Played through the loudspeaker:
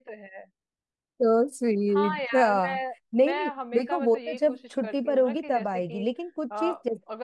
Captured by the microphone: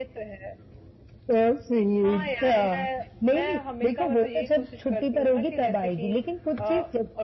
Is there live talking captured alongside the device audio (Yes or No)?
No